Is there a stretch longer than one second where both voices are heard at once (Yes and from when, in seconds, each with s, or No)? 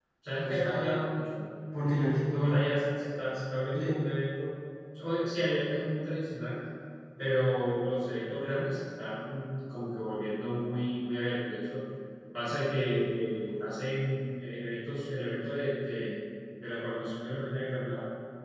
No